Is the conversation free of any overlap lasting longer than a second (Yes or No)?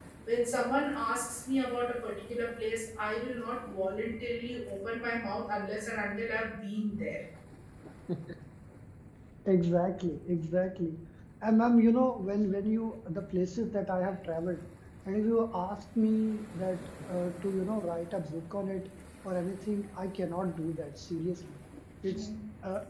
Yes